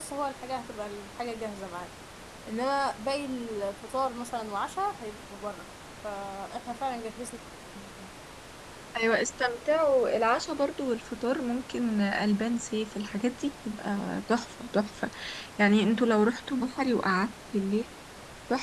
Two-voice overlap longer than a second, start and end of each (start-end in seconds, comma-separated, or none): none